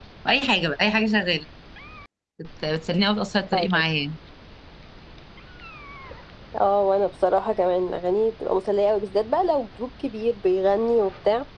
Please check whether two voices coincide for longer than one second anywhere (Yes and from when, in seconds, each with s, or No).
No